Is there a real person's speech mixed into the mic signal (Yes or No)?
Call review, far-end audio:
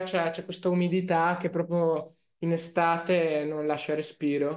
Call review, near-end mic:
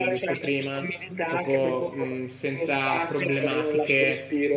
Yes